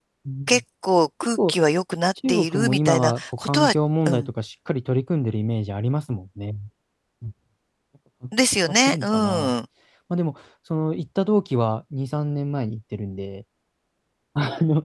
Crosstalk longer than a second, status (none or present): present